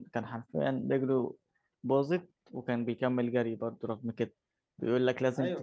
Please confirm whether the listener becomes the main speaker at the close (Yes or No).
No